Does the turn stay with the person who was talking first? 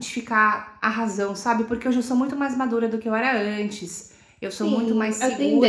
No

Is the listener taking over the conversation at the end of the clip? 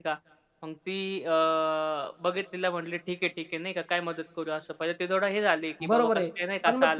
Yes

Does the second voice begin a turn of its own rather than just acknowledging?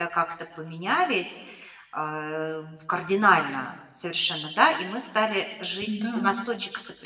No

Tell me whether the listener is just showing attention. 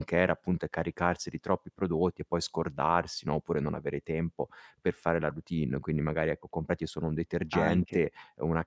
Yes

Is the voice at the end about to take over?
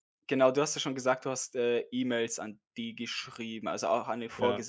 No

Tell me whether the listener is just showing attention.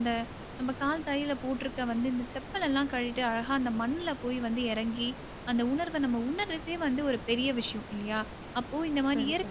Yes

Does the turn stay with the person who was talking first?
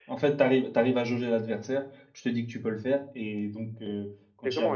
No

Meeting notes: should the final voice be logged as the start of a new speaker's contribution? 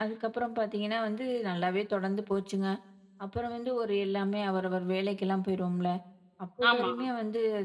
No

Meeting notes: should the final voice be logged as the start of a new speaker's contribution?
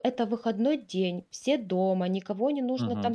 No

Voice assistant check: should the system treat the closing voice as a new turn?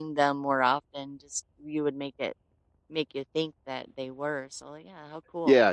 Yes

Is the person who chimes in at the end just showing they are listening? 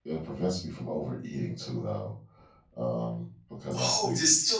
No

